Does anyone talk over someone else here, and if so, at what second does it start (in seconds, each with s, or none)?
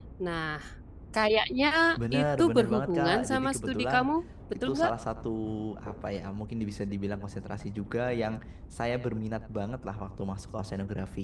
2.1 s